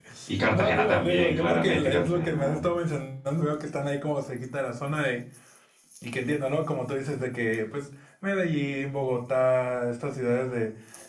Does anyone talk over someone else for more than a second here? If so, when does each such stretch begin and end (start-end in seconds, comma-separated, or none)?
0.5-2.6